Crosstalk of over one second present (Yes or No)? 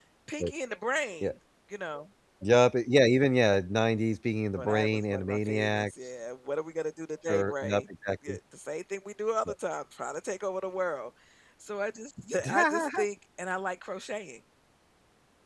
Yes